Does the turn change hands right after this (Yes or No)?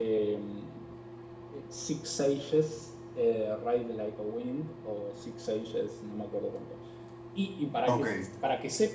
No